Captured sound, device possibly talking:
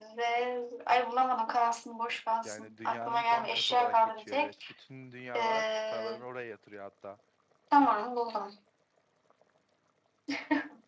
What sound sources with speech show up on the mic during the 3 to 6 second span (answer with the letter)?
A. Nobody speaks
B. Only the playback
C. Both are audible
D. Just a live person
C